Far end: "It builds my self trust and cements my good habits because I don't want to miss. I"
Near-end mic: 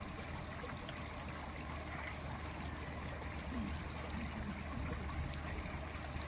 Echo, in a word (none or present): none